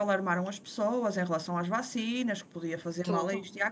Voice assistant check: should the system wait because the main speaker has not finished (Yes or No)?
Yes